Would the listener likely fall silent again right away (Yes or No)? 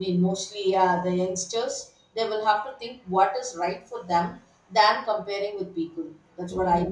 No